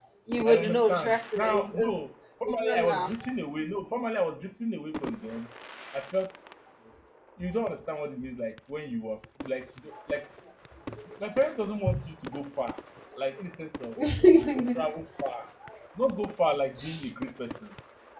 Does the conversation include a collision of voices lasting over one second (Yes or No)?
Yes